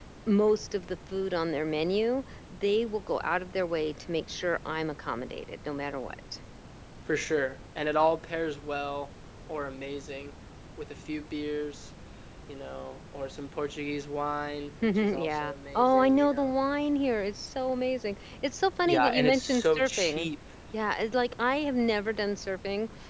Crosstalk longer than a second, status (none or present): present